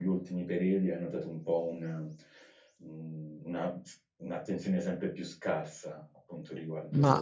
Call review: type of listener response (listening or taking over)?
taking over